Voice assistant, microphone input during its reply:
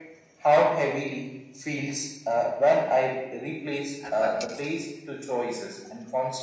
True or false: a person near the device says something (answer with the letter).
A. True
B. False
A